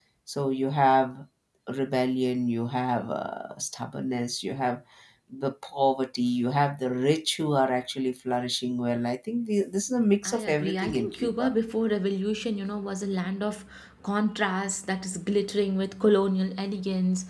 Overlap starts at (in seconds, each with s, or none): 10.2 s